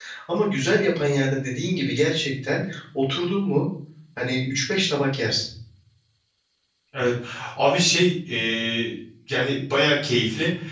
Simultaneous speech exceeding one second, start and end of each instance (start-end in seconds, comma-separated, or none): none